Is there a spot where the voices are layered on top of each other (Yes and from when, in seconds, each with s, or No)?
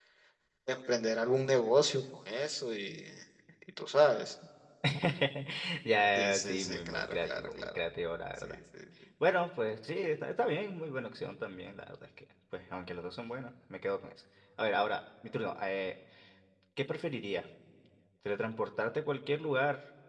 Yes, from 6.2 s